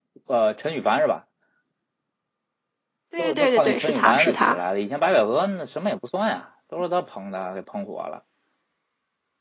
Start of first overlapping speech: 3 s

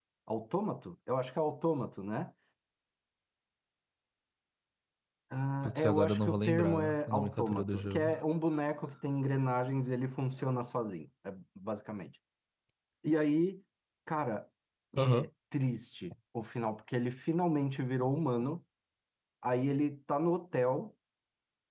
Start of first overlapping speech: 6 s

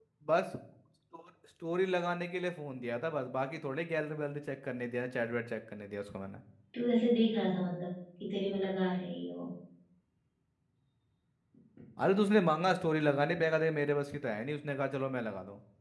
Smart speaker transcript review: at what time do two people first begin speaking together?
none

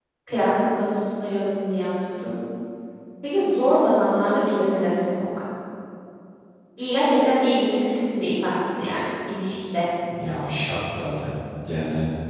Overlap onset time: none

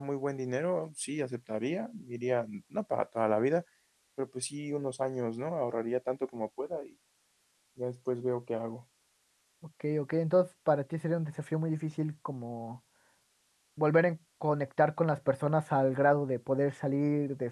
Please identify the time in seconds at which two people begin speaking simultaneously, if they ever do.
none

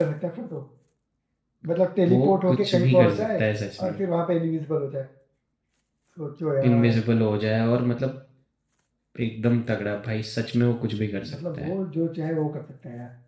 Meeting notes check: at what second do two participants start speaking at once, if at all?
2 s

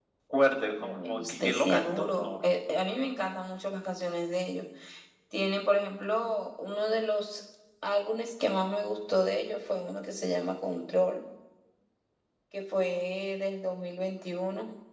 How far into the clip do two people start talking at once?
1 s

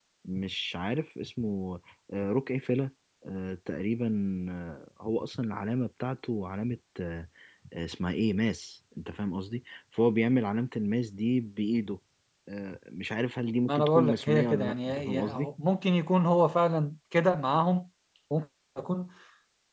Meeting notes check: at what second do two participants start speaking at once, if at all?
14 s

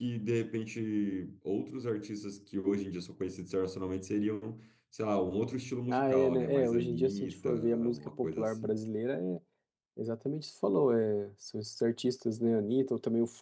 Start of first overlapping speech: 6 s

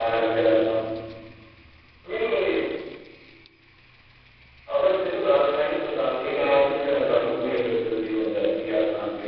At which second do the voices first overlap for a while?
6 s

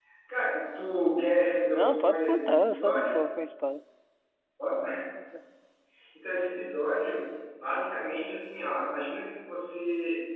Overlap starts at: 2 s

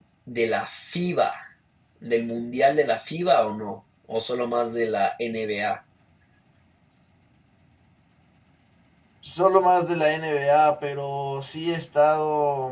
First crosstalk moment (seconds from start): none

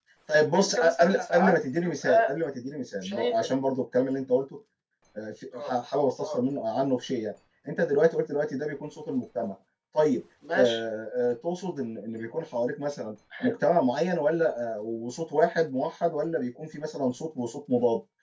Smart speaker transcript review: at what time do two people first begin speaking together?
1 s

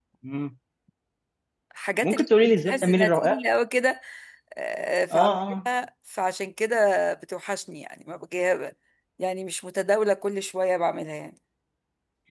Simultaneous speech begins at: 2 s

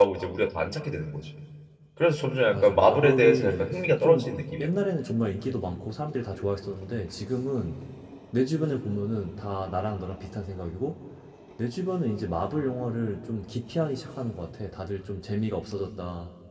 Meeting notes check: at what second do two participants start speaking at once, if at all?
3 s

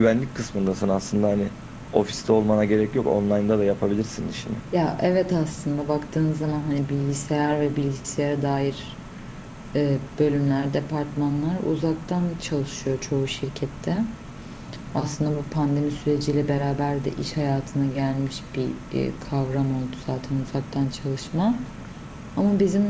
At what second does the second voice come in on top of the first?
none

